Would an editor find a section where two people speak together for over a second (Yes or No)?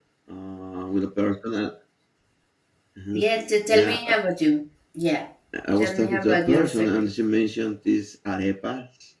Yes